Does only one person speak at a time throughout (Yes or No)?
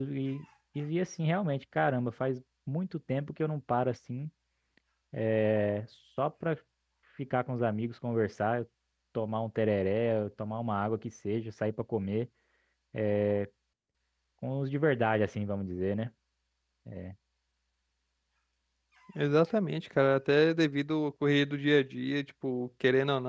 Yes